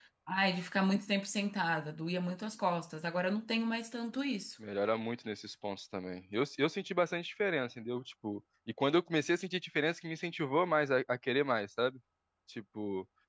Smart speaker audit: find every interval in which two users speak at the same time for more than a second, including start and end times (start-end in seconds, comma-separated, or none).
none